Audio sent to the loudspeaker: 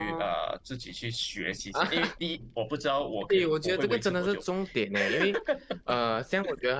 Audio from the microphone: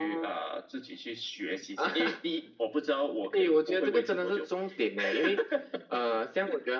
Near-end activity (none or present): none